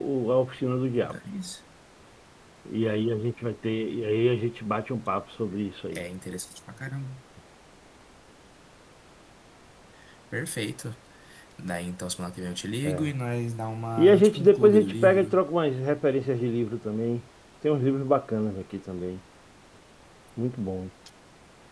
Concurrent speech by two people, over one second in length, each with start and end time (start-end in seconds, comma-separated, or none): 14.0-15.3